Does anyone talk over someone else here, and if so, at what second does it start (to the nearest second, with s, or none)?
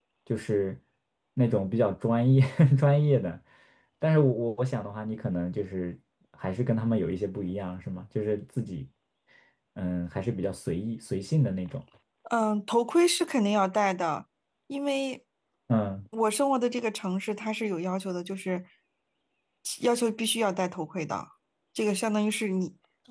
none